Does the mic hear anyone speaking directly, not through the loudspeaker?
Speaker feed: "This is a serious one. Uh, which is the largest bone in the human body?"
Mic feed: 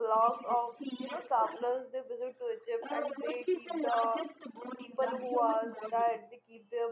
Yes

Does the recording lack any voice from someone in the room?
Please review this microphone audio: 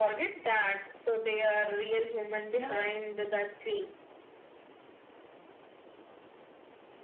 No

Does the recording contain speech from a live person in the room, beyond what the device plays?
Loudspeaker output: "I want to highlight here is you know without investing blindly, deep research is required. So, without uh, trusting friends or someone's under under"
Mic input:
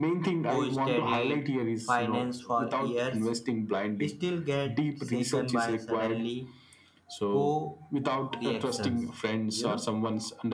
Yes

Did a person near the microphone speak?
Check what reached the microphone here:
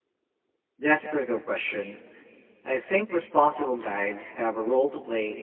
Yes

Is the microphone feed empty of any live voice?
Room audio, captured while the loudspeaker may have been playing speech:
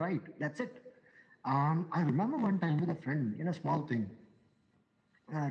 Yes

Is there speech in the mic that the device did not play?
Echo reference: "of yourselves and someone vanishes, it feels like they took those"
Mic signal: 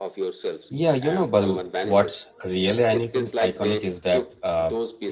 Yes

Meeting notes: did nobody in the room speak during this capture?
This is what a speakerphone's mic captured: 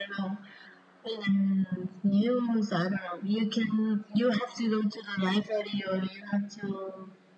Yes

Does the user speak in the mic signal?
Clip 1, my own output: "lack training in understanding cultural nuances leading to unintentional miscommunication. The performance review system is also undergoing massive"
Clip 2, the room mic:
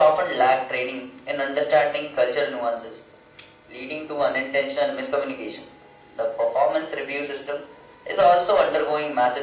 No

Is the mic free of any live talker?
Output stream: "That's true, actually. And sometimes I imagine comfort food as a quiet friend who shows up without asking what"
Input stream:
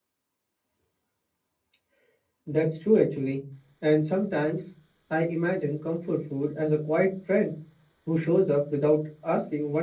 Yes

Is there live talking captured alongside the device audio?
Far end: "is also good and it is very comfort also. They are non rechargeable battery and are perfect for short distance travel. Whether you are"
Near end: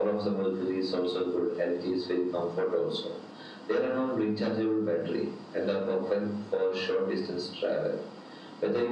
No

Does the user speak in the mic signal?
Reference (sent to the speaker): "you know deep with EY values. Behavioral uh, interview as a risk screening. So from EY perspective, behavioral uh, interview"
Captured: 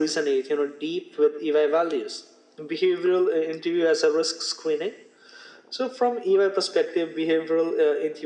No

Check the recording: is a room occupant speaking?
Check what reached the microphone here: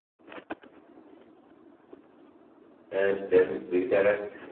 Yes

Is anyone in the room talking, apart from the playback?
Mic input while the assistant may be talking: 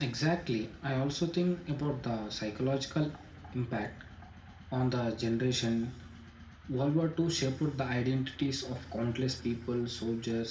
No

